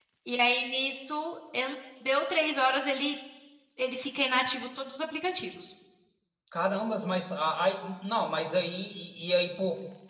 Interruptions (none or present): none